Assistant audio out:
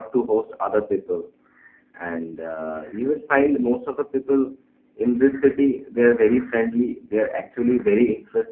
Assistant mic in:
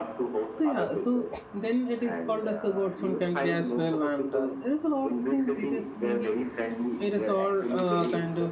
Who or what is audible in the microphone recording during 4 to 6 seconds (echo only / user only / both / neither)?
both